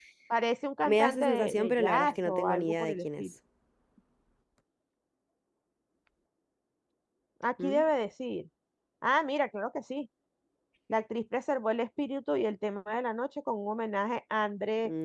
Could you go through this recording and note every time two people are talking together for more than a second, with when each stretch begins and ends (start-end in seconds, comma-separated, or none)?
0.9-3.3